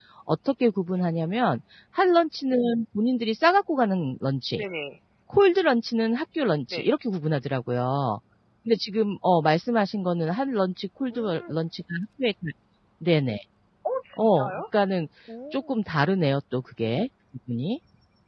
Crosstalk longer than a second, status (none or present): none